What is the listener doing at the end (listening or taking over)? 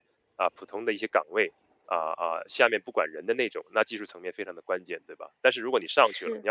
listening